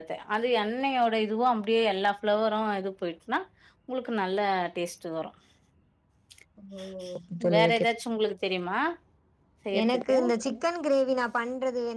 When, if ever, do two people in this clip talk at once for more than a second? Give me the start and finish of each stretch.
none

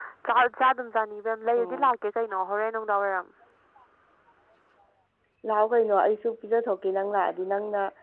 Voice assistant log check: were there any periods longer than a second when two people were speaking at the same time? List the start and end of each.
none

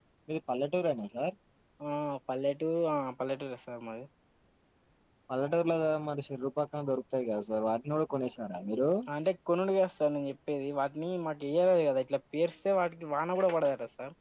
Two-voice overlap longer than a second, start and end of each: none

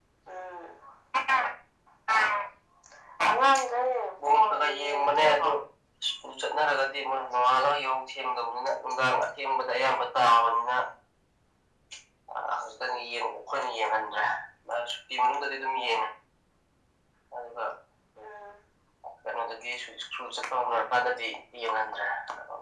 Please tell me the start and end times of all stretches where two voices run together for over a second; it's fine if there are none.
4.2-5.5

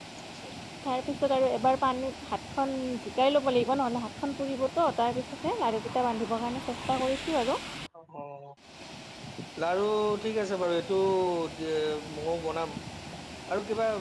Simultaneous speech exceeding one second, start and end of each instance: none

